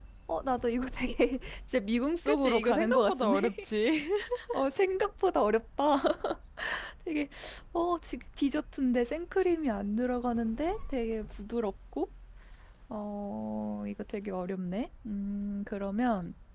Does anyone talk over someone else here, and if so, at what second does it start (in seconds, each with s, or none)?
2.2 s